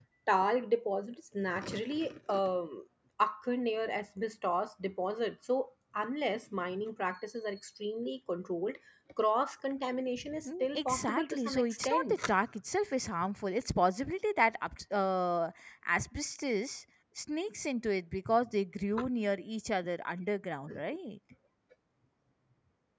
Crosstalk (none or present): present